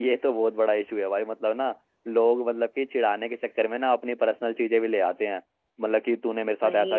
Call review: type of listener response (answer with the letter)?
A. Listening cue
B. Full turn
A